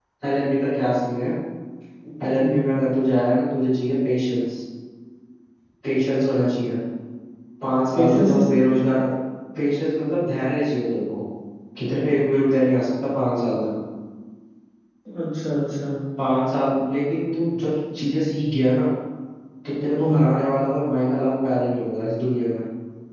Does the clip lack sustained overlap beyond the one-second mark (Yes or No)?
Yes